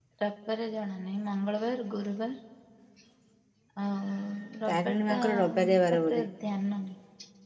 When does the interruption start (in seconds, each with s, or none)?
4.7 s